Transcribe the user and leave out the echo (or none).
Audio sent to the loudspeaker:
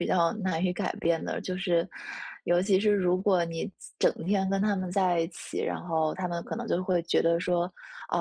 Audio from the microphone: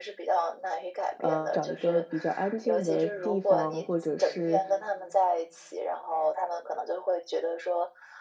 呃，找一个比较安静的地方，或者是，